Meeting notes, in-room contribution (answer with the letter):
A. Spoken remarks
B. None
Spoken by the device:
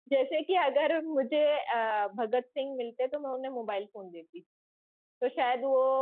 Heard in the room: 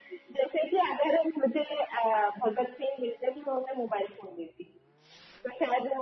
B